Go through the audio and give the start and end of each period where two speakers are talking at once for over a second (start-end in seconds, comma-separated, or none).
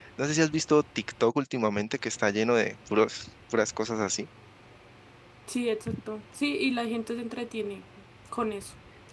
none